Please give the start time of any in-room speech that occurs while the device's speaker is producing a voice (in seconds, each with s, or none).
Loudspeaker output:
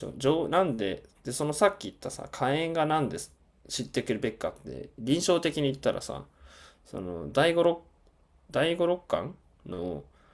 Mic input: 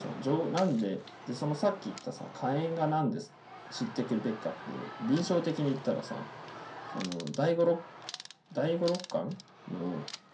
none